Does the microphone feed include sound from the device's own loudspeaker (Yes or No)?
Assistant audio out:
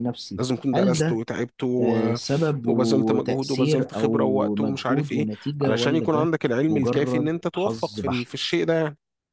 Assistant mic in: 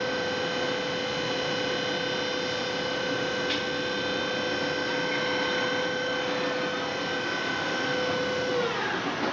No